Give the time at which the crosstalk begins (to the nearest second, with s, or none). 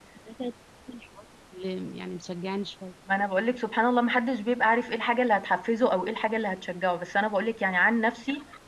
none